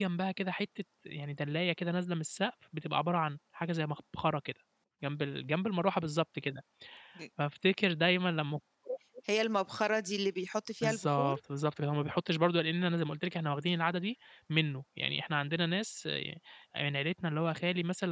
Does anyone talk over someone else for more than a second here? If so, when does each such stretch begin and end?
none

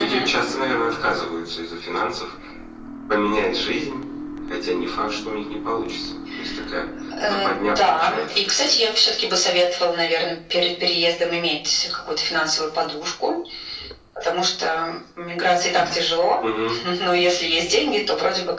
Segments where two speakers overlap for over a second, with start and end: 7.2-8.8

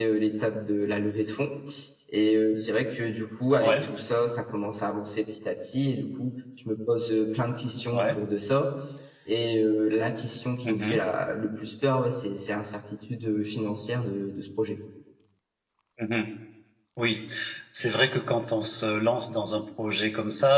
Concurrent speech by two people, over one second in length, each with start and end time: none

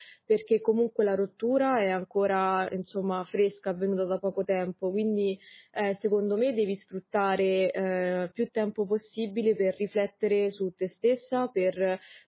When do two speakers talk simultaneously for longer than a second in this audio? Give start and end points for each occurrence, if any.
none

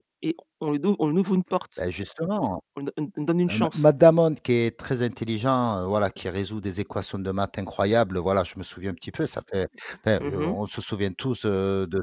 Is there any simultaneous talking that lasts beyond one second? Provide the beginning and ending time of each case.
none

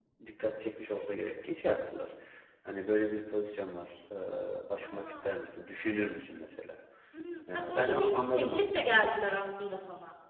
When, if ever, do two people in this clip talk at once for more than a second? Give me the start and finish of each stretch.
7.5-9.0

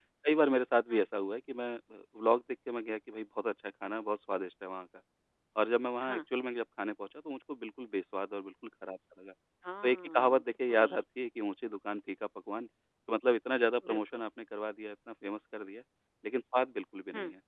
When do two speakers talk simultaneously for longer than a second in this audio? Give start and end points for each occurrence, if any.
9.8-11.0

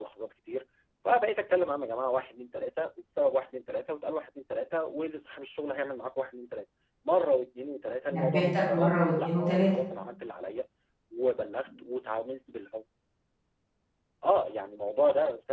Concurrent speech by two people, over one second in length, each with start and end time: 8.1-9.8

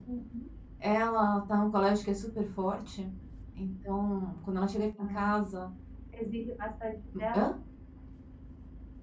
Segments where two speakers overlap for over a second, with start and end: none

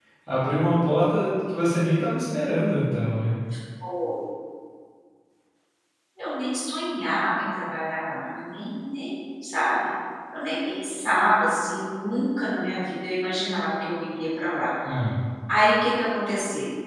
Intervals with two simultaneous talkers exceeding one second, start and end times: none

